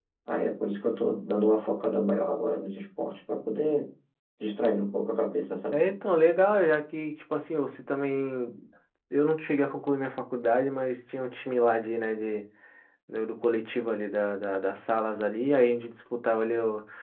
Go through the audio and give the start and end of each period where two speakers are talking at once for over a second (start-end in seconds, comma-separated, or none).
none